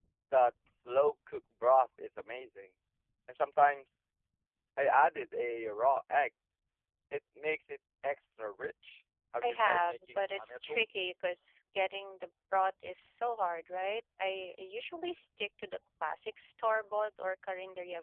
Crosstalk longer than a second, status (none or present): present